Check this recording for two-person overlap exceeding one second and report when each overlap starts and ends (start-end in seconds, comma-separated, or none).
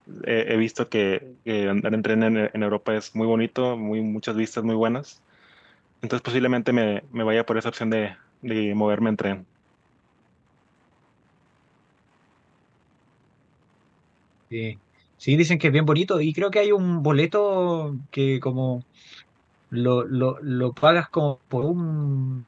none